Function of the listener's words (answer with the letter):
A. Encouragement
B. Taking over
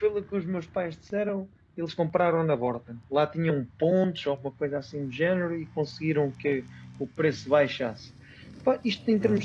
A